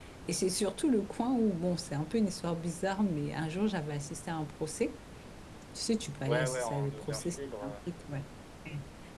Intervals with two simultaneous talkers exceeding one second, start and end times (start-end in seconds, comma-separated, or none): 6.3-7.8